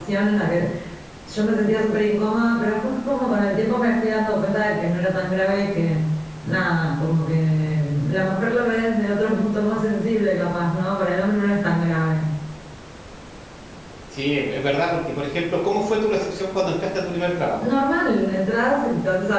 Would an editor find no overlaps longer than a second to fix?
Yes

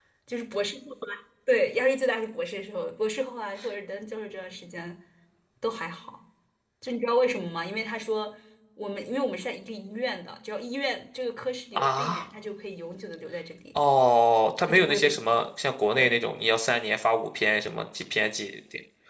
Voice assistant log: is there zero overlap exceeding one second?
Yes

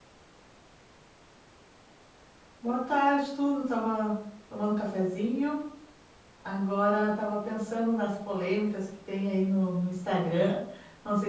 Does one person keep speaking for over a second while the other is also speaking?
No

